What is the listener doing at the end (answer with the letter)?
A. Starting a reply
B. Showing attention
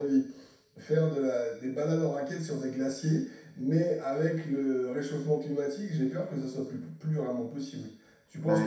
A